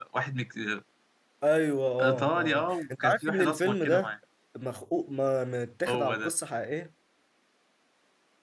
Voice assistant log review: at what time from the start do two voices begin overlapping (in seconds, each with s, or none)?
2.0 s